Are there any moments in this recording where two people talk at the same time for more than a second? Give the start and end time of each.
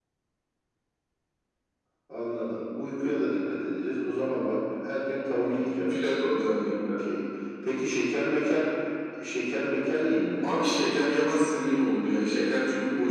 none

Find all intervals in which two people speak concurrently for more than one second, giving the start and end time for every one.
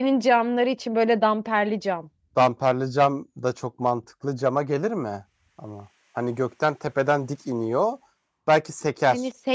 none

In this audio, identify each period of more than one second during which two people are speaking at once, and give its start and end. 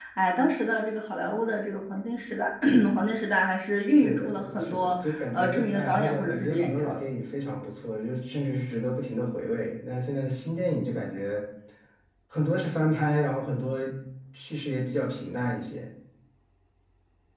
4.0-6.9

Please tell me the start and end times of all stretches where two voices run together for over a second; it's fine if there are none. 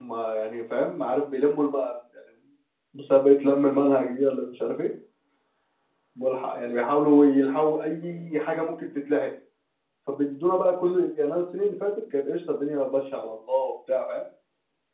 none

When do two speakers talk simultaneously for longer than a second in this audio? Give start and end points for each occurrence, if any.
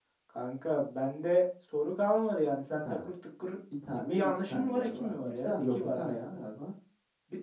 3.9-6.4

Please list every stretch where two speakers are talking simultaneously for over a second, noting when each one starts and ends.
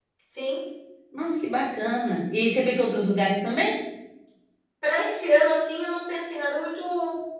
none

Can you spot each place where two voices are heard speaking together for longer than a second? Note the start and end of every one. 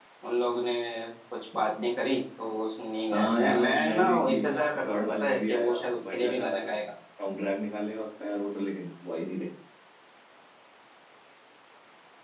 3.1-6.7

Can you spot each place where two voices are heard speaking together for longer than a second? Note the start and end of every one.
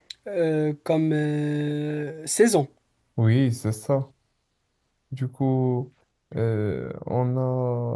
none

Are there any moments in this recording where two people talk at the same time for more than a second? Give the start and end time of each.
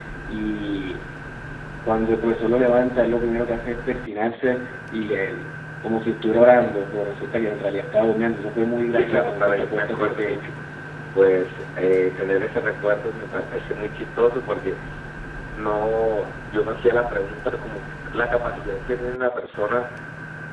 8.9-10.4

